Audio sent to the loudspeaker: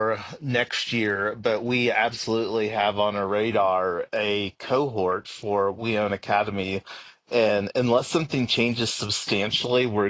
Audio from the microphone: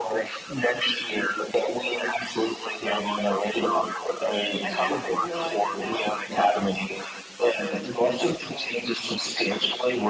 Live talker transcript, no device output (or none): i guess i realize it now is like their extension of